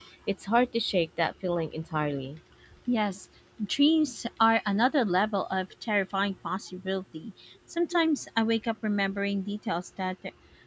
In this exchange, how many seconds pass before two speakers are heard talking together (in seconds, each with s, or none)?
none